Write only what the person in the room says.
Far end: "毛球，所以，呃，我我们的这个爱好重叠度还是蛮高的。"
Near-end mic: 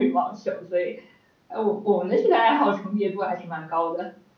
none

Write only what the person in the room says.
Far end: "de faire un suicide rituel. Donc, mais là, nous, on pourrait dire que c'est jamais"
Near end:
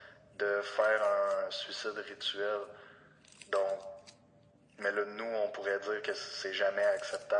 none

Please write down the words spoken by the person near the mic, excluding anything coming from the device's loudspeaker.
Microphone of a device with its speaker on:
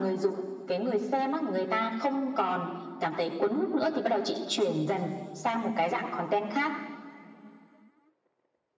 none

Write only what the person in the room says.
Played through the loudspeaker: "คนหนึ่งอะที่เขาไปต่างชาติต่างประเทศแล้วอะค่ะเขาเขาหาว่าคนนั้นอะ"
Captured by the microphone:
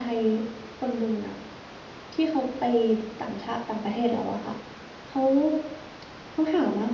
none

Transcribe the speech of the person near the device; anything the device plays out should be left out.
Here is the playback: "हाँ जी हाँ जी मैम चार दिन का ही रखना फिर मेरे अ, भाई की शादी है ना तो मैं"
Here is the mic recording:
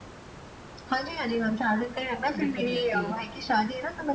दिक्कत रहती है

